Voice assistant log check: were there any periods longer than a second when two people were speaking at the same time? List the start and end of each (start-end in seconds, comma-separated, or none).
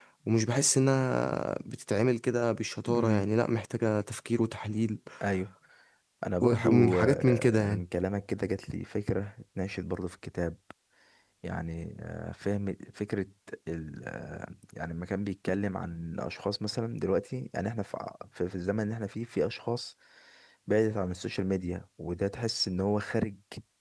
6.4-7.8